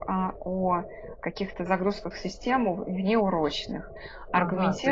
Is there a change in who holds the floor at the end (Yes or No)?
Yes